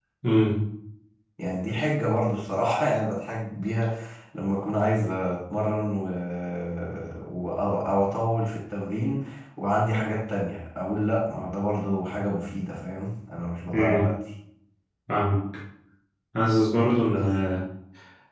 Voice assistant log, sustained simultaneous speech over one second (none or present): none